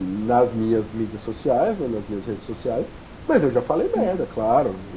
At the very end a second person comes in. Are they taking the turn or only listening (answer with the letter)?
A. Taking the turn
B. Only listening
B